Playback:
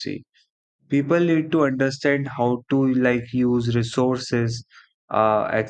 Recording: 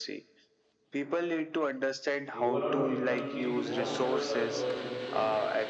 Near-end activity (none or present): present